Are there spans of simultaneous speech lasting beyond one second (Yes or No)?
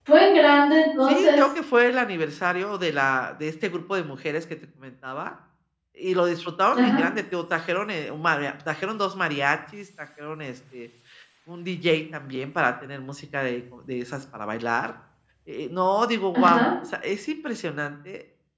No